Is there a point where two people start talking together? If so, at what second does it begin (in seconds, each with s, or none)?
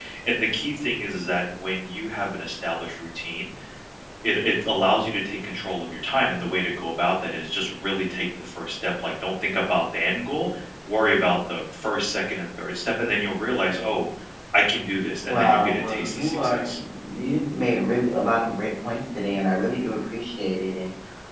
15.2 s